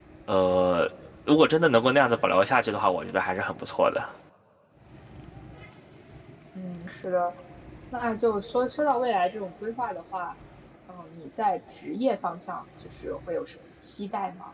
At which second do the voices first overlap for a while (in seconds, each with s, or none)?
none